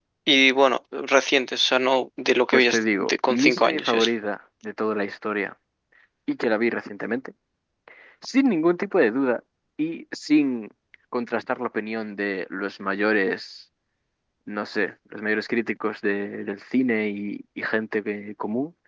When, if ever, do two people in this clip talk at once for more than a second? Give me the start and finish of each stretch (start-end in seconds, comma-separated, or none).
2.5-4.1